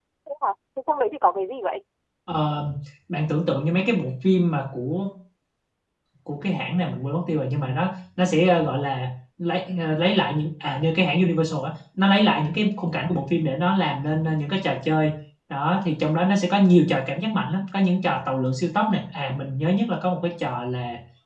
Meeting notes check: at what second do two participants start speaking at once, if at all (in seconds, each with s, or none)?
none